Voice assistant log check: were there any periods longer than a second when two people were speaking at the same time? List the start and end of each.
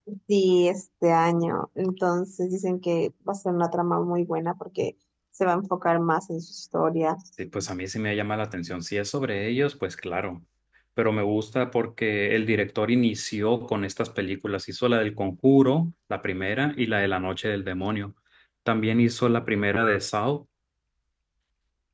none

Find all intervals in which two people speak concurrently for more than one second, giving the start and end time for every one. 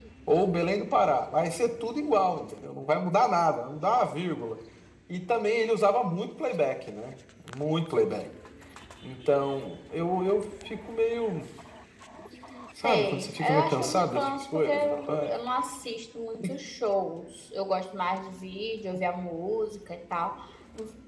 12.8-15.3

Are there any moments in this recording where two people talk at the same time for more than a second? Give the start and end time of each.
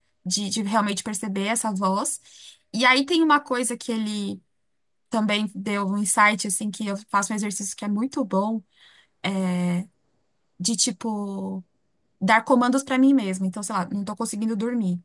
none

